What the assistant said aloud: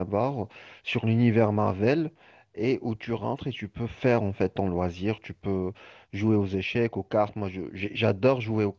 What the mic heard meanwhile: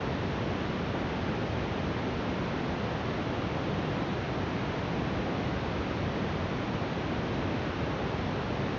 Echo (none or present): none